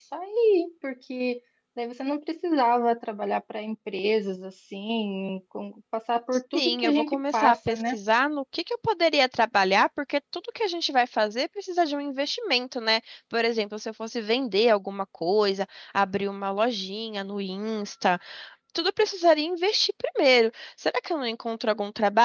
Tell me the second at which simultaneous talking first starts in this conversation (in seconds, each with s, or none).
6.5 s